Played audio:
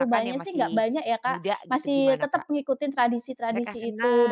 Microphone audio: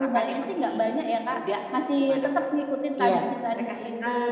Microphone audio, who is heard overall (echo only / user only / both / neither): both